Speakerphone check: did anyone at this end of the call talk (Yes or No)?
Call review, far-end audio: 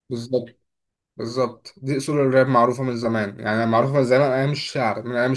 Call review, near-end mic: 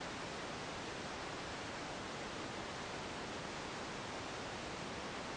No